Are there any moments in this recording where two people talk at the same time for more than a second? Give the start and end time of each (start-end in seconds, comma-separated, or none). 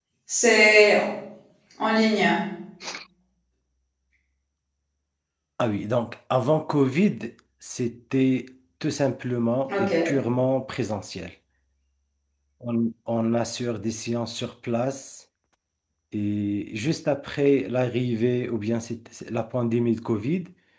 none